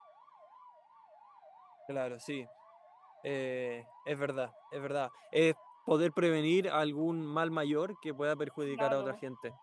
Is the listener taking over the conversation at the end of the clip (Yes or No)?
Yes